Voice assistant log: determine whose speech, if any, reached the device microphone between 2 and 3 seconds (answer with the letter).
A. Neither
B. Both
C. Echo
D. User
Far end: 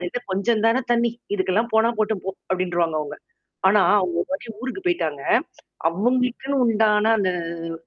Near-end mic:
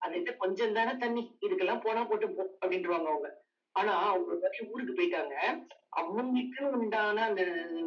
C